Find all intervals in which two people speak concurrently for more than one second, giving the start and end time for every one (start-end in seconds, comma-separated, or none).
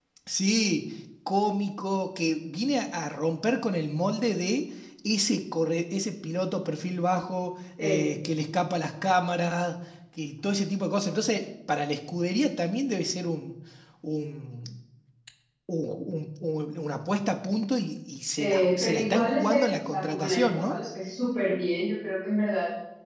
18.4-20.8